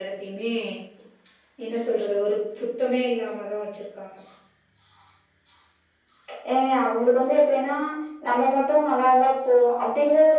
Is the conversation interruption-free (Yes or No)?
Yes